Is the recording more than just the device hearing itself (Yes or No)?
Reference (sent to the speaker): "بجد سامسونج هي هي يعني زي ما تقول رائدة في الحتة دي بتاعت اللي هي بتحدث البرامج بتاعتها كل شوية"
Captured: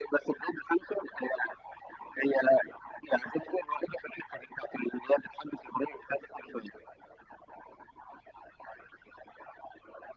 No